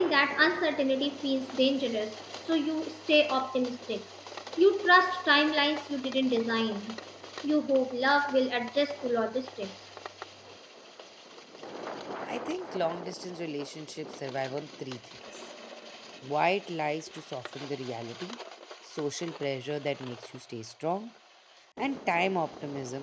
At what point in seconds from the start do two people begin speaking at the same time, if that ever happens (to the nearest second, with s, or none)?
none